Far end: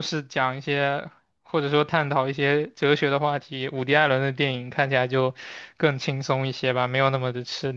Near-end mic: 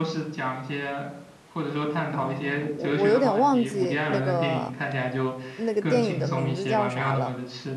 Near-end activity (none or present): present